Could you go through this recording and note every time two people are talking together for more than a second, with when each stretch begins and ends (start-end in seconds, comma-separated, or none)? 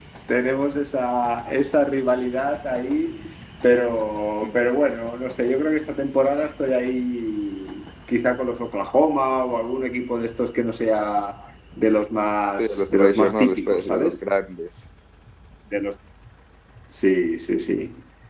12.6-14.2